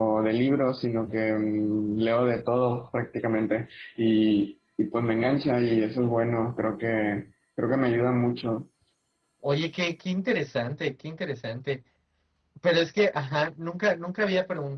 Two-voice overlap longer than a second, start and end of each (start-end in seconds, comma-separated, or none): none